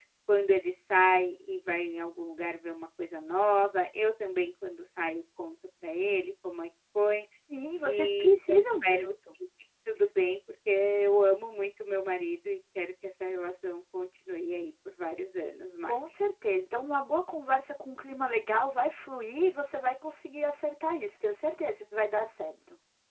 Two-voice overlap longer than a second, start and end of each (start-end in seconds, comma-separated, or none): 7.8-9.1